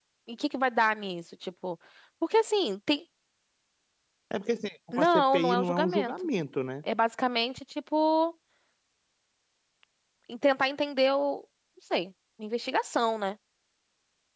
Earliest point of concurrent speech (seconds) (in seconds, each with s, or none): 4.9 s